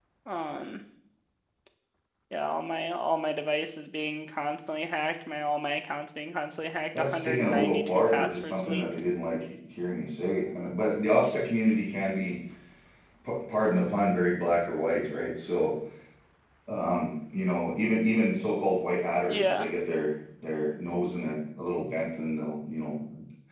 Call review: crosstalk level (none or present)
present